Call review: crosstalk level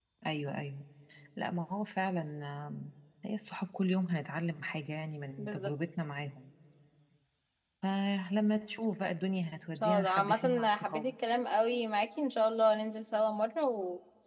present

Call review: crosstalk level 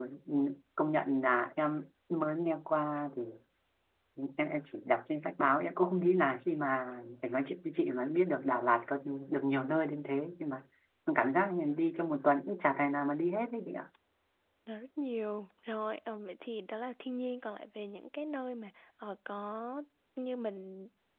none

